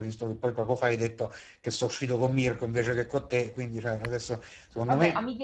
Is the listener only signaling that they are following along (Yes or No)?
No